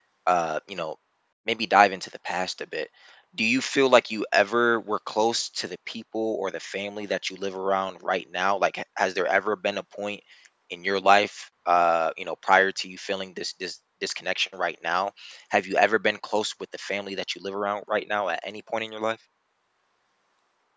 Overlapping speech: No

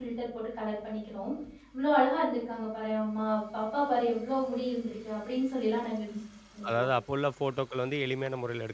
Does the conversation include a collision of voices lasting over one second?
No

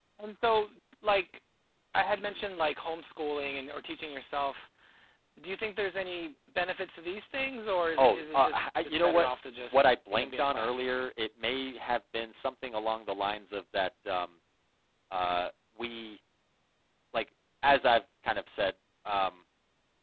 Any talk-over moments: Yes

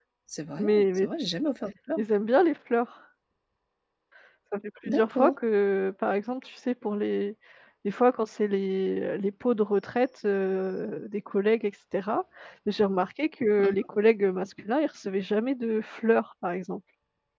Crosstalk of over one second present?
No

